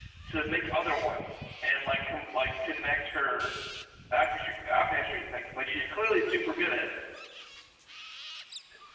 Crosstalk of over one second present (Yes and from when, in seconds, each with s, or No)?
No